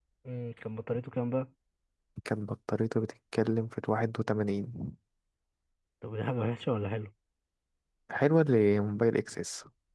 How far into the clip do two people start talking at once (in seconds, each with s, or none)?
none